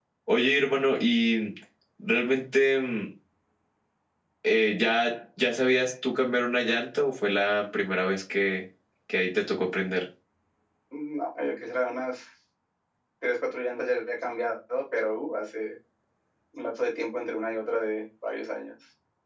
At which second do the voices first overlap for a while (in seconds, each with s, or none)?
none